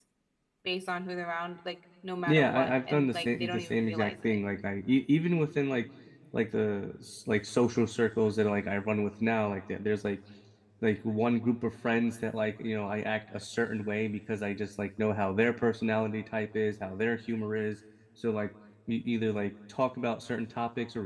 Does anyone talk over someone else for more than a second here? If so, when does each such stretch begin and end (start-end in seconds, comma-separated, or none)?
2.2-4.4